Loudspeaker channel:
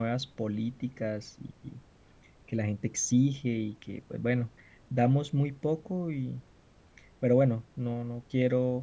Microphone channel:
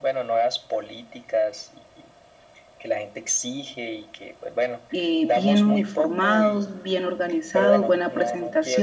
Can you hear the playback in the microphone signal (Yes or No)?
Yes